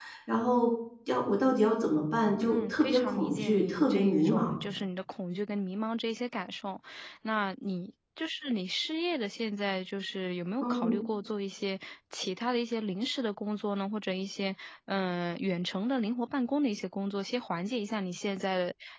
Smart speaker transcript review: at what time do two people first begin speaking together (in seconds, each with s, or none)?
2.4 s